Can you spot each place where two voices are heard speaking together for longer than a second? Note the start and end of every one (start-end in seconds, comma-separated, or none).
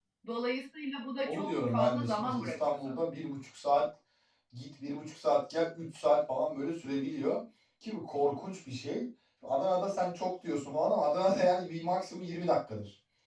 1.3-3.0